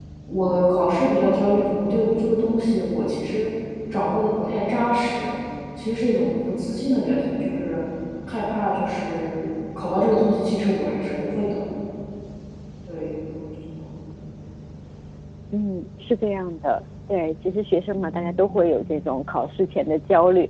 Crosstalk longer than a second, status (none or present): none